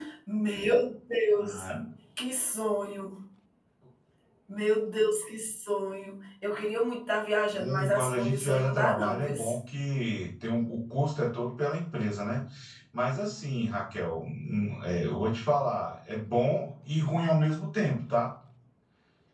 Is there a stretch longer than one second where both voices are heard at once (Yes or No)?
Yes